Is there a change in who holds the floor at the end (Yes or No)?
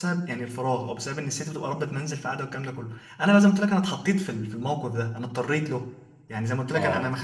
No